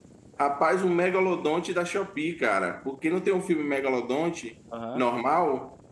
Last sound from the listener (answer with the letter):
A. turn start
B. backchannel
B